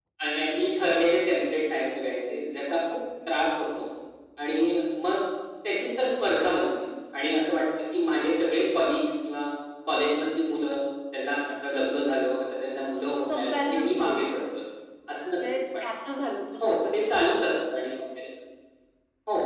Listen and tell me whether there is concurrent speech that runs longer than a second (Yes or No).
Yes